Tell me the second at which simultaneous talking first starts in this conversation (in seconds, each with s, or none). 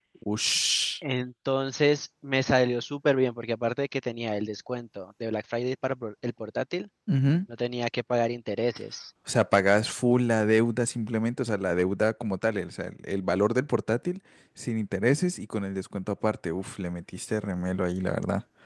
none